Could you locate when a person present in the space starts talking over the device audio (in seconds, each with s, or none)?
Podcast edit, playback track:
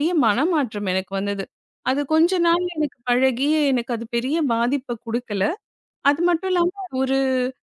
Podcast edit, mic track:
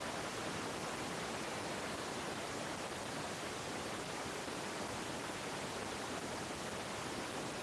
none